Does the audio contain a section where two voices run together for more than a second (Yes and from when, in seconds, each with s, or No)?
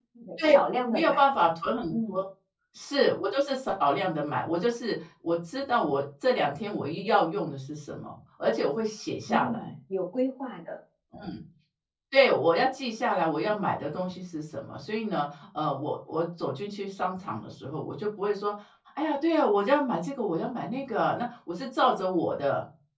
No